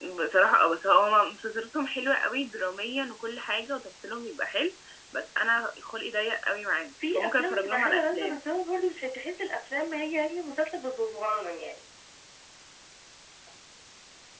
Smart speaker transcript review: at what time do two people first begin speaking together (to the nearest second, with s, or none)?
7 s